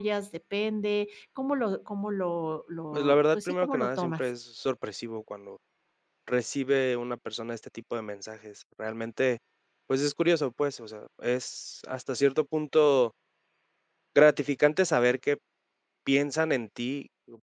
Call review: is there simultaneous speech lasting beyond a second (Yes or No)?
Yes